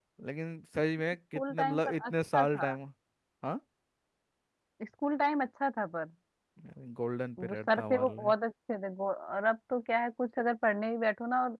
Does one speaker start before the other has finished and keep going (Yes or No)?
Yes